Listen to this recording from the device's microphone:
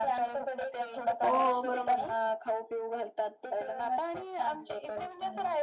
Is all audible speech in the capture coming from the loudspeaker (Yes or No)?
No